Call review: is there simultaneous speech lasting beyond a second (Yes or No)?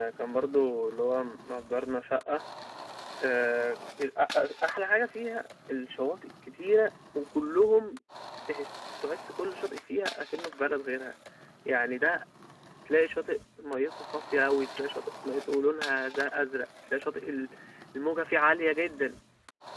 No